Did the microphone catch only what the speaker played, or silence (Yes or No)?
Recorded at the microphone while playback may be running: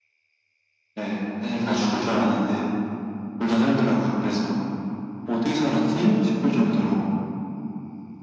No